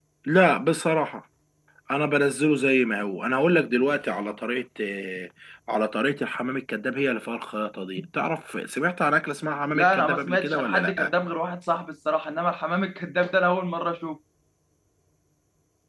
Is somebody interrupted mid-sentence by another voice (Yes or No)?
Yes